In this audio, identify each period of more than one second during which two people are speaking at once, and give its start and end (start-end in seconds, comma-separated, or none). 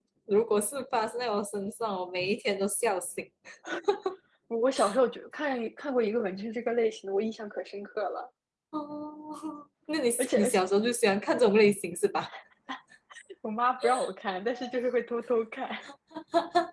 none